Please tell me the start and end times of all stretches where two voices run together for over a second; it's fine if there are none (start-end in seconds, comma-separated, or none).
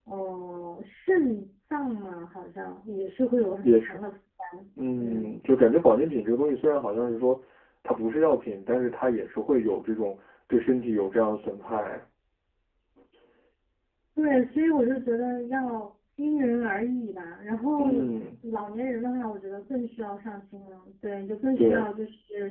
none